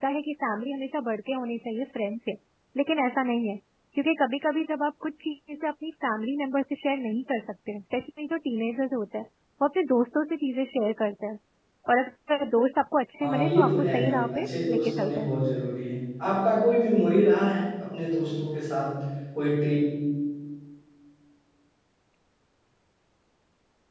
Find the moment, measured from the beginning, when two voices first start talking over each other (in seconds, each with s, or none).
13.2 s